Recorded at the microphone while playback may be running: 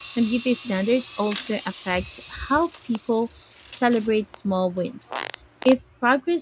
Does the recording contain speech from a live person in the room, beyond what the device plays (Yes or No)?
Yes